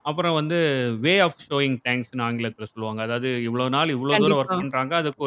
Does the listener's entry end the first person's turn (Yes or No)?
No